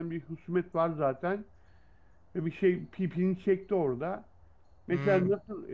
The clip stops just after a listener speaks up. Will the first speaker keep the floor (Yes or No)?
Yes